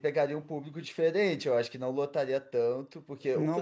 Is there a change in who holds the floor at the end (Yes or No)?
Yes